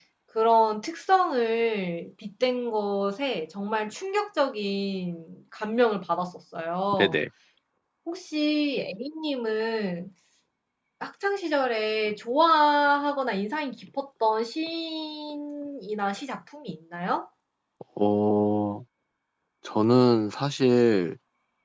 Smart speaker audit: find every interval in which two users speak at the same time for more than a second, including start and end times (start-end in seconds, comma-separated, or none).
none